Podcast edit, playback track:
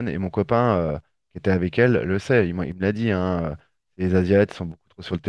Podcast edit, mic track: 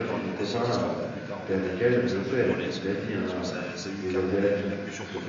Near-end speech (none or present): present